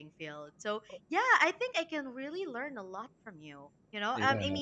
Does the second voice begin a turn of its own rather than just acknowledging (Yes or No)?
No